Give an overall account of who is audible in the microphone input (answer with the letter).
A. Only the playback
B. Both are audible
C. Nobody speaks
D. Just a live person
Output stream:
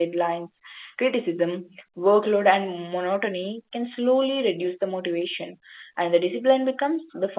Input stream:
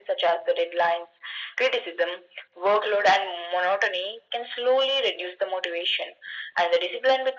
A